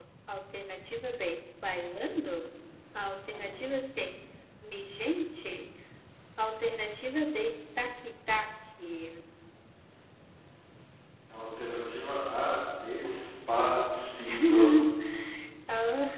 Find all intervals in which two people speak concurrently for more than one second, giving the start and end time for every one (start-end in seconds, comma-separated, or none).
none